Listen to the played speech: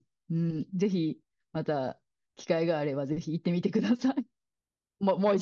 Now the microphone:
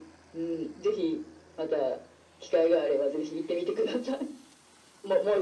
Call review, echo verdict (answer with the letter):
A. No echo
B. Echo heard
B